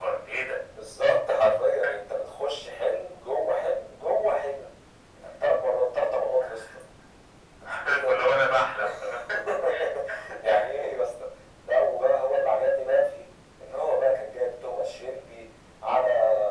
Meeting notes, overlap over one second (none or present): none